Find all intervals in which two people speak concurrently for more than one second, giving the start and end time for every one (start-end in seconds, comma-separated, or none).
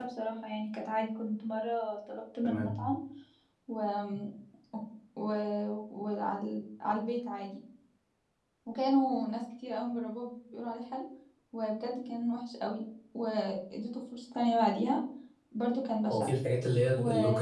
none